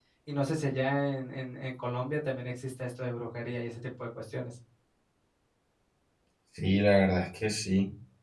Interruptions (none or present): none